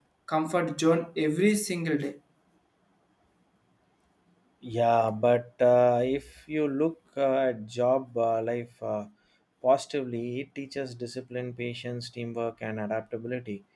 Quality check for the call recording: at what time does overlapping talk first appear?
none

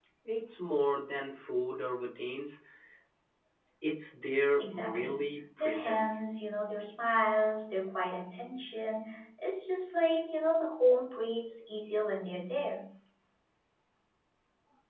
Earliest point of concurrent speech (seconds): 4.6 s

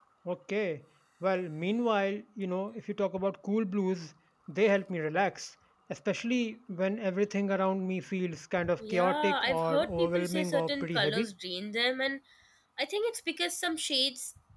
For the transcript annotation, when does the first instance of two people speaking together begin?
8.6 s

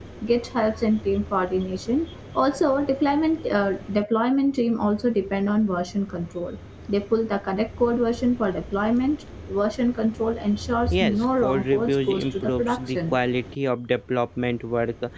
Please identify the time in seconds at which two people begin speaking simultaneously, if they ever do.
10.8 s

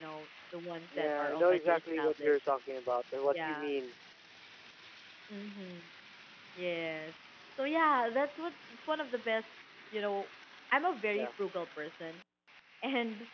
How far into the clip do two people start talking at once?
1.0 s

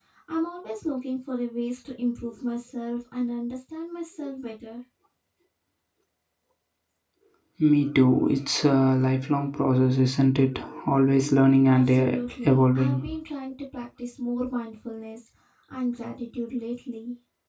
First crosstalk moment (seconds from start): 11.7 s

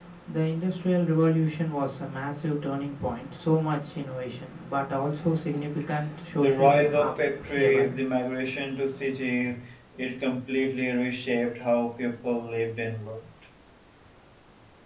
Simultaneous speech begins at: 6.4 s

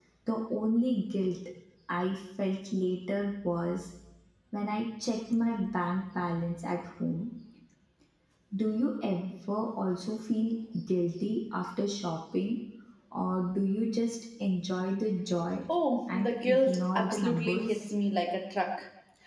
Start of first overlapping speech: 16.1 s

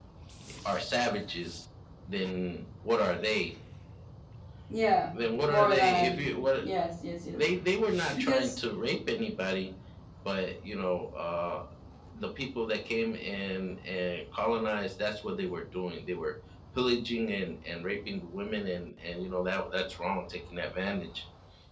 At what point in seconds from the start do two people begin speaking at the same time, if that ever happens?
5.1 s

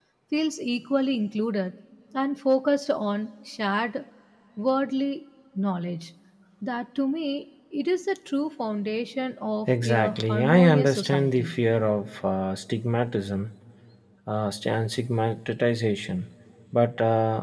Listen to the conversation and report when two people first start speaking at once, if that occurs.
9.7 s

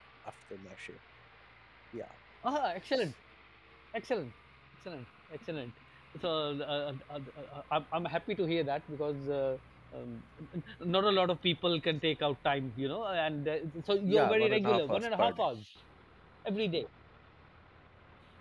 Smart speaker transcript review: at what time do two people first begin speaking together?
14.1 s

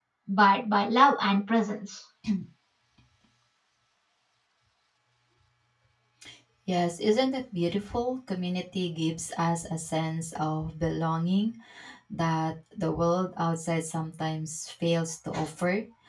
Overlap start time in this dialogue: none

